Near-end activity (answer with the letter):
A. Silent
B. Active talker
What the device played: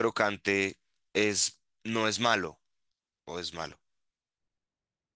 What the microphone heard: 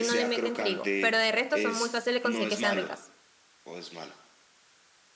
B